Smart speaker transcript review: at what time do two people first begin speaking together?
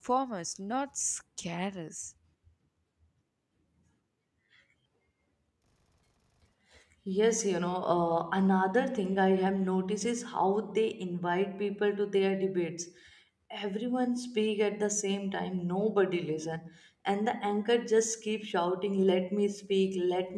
none

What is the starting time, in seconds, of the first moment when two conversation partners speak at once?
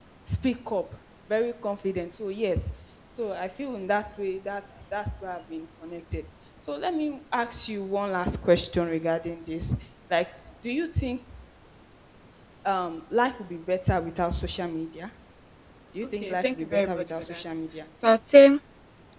16.2 s

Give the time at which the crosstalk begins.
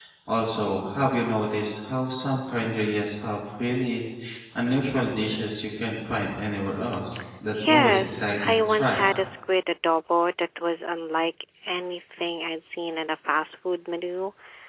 7.6 s

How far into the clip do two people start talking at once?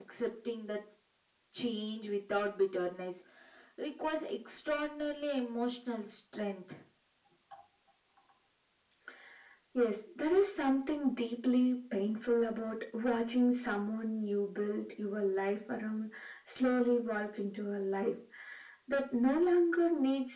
none

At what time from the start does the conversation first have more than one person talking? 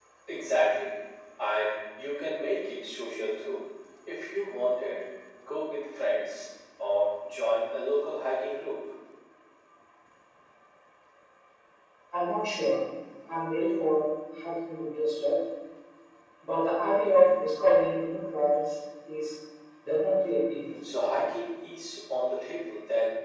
none

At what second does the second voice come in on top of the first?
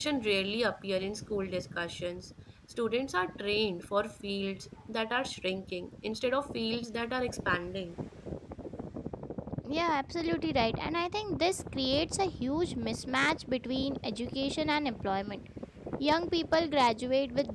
none

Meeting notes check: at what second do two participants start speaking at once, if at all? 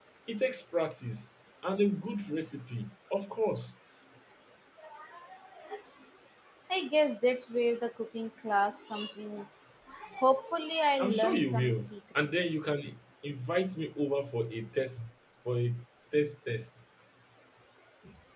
11.0 s

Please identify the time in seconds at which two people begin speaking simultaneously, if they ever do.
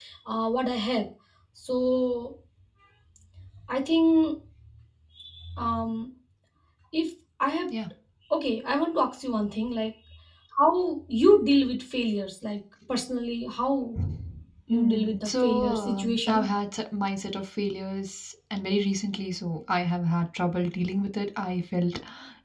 14.7 s

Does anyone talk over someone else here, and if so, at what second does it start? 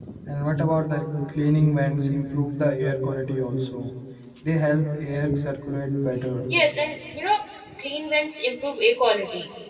none

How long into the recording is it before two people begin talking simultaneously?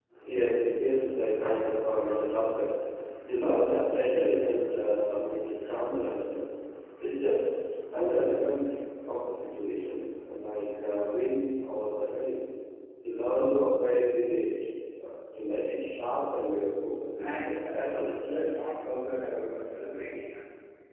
17.1 s

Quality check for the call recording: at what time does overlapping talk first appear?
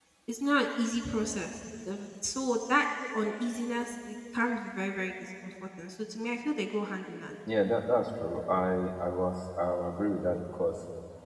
none

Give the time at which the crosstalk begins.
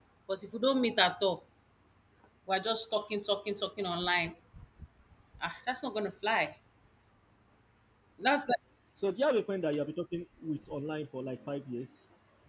none

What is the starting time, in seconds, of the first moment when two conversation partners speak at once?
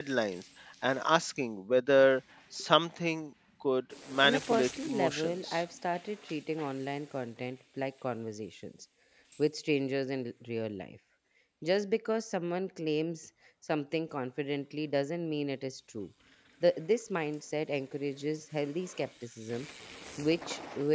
4.2 s

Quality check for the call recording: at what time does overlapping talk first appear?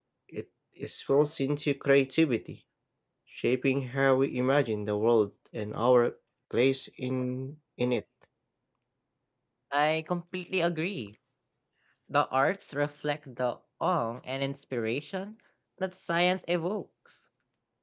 none

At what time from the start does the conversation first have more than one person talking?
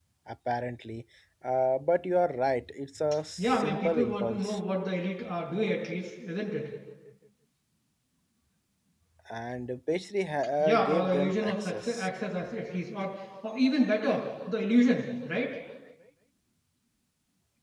3.4 s

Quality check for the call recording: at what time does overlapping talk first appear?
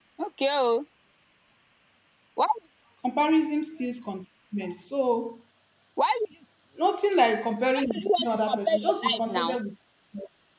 7.8 s

